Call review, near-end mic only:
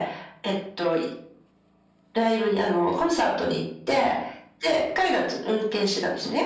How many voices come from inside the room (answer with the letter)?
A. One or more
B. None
B